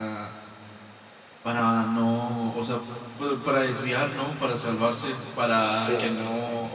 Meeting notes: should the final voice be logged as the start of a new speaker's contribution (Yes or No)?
No